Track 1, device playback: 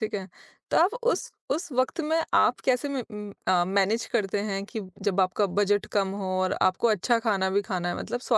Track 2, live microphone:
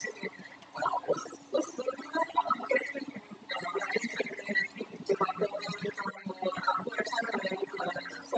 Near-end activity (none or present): none